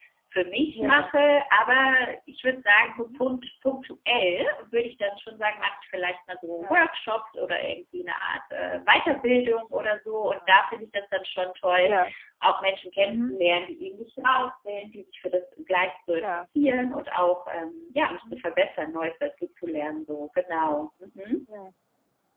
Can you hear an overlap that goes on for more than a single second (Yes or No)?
No